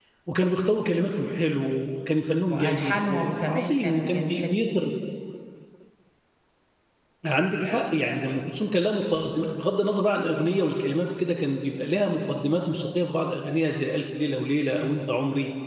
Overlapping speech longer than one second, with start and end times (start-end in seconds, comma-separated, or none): 2.5-4.9